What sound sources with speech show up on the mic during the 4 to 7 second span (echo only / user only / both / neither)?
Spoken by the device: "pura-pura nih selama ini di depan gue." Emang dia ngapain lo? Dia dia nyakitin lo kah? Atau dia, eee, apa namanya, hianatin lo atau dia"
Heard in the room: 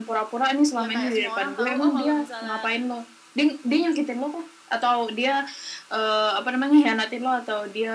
echo only